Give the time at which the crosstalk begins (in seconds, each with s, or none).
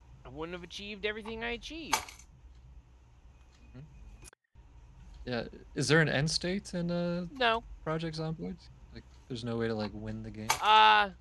none